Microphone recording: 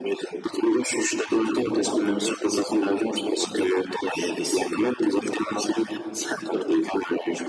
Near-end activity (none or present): none